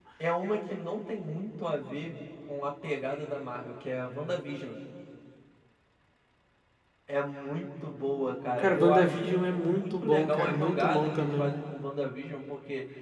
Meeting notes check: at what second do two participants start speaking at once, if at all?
9 s

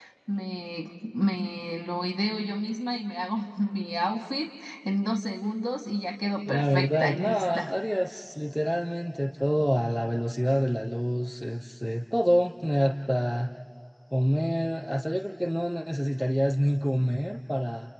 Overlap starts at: 6 s

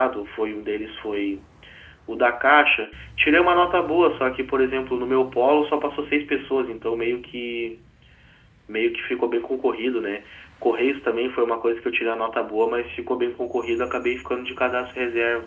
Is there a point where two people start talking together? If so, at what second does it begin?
none

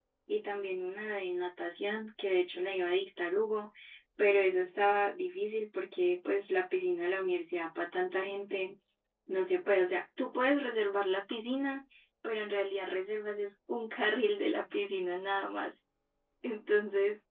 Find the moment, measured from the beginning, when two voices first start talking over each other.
none

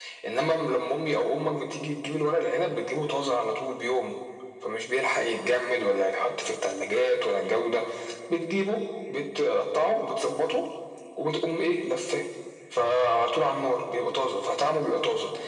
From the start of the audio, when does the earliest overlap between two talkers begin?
none

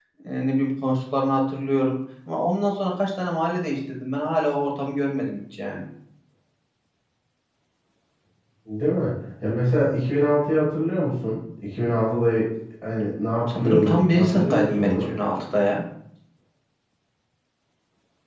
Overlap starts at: 13 s

